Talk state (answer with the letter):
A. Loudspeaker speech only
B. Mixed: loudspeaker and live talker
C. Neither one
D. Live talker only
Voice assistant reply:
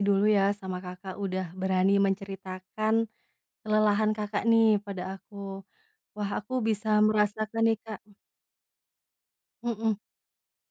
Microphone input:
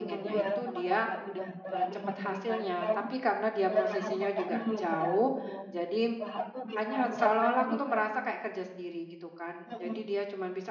B